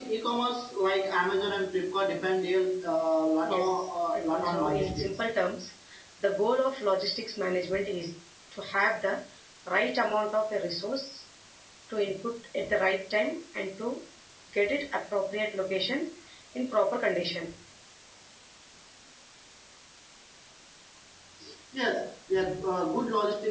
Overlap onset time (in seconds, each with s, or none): 3.5 s